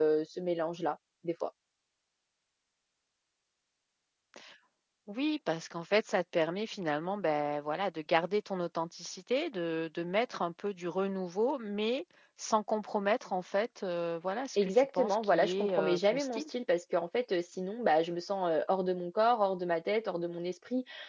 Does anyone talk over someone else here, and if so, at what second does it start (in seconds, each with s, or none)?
14.6 s